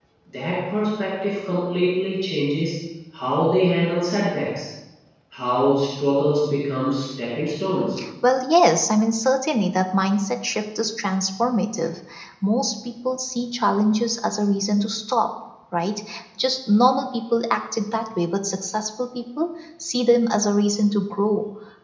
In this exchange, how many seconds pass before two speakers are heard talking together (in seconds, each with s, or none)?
none